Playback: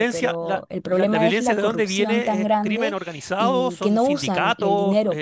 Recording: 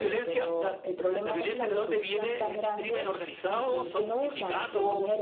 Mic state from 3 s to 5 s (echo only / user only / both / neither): echo only